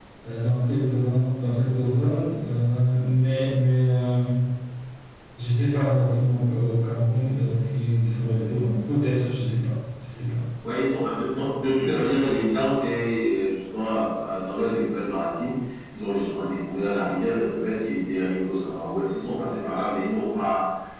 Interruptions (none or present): none